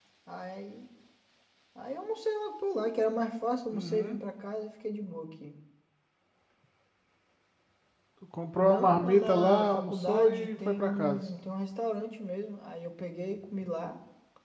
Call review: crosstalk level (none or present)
present